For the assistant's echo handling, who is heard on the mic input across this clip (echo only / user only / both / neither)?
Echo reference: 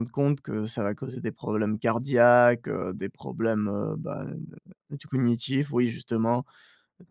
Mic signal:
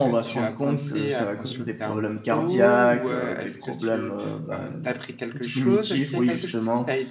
both